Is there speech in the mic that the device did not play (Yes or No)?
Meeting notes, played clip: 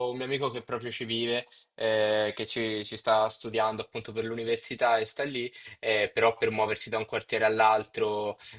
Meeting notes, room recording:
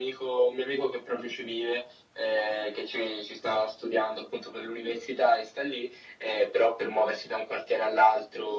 No